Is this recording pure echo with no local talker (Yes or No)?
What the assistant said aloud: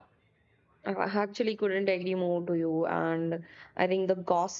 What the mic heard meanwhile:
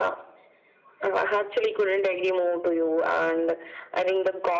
Yes